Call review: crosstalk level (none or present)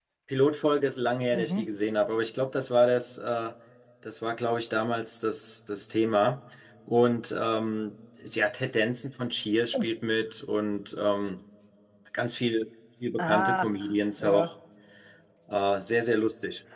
present